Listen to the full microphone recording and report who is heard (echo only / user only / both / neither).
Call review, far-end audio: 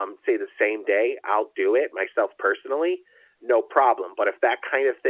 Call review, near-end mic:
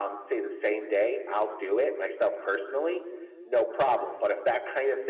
echo only